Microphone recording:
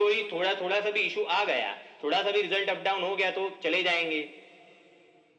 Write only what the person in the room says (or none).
none